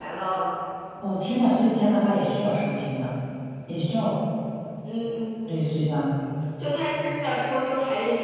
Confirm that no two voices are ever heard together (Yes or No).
Yes